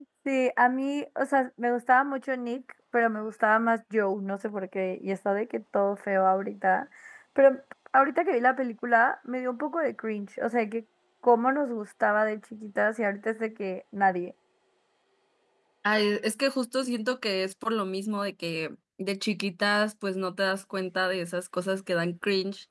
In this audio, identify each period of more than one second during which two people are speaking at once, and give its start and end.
none

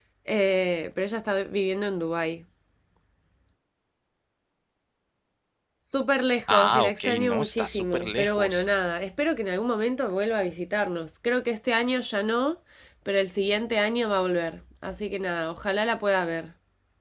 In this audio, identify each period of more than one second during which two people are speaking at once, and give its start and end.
6.5-8.7

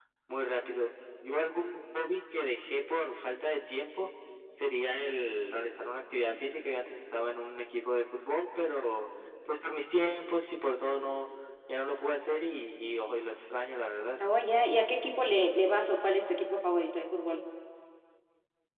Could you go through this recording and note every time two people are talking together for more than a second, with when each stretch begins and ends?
none

